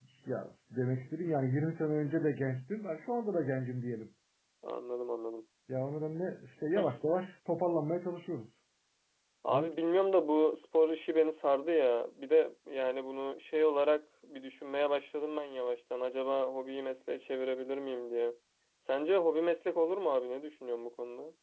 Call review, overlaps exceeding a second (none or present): none